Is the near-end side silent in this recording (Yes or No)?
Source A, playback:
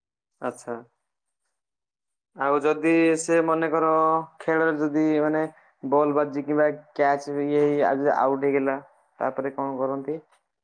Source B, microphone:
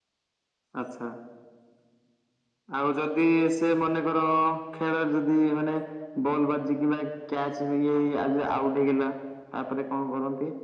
Yes